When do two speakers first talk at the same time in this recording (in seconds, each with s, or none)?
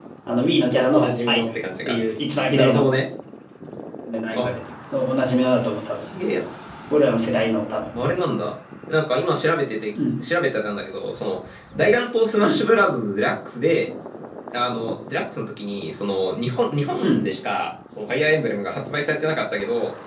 0.7 s